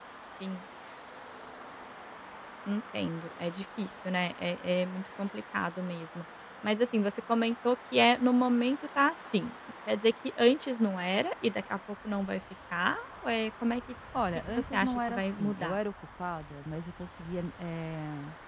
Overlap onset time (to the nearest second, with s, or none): 14 s